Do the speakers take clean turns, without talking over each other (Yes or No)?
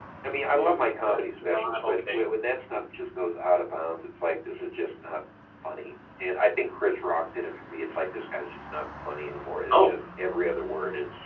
No